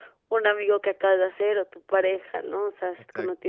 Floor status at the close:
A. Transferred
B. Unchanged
B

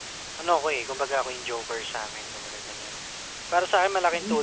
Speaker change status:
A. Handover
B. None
B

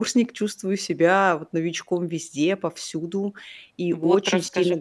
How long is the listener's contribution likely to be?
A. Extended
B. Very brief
A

